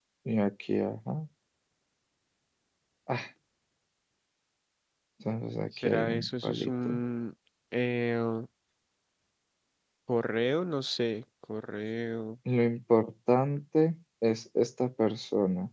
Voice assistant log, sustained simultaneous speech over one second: present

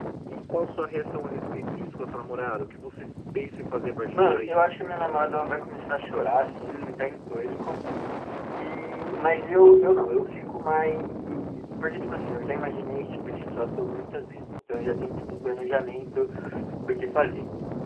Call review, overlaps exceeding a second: none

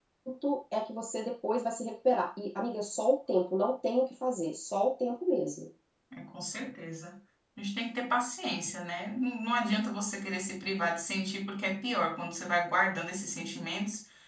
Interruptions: none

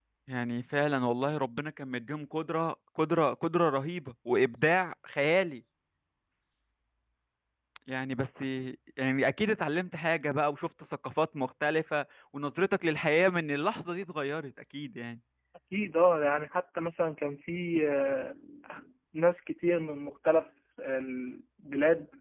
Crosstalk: none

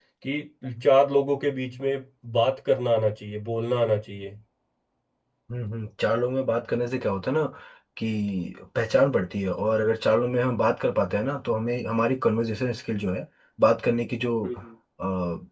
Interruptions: none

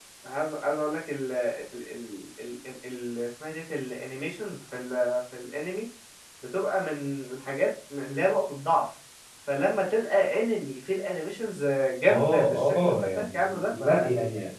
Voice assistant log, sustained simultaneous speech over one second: present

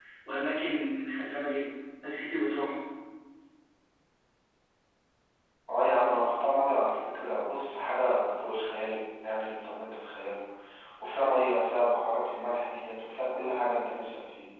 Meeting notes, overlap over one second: none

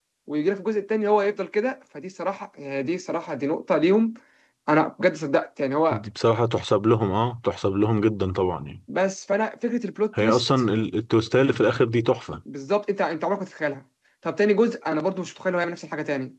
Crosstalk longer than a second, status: none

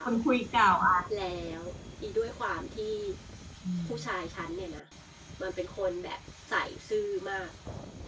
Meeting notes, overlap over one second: none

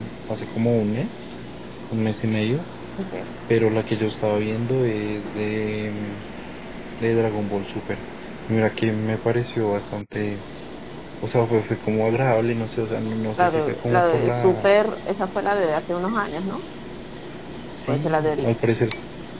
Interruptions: present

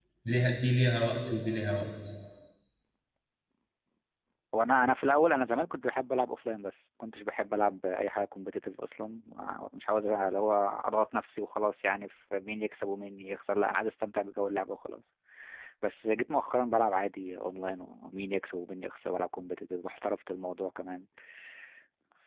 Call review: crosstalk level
none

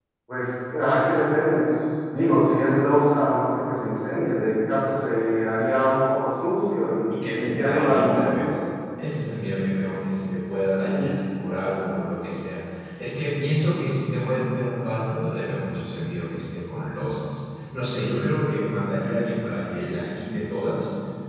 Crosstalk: present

